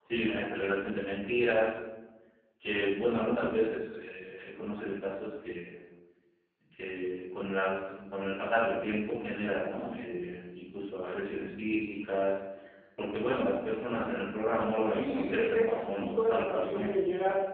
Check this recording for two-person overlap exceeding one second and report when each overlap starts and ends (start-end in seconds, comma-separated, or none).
14.9-16.9